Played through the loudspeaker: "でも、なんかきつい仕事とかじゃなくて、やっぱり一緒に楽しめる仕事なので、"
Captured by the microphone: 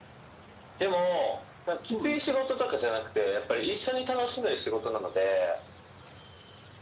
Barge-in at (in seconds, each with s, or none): 1.7 s